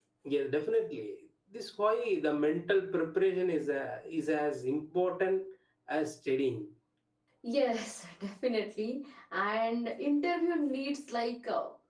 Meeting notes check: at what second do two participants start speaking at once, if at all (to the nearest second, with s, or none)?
none